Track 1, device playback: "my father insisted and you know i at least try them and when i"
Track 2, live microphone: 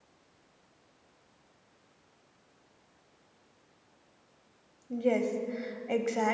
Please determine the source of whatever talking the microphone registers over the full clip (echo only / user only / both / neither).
user only